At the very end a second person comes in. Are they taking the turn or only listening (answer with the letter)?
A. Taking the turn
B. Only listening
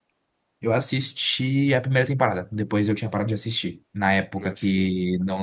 B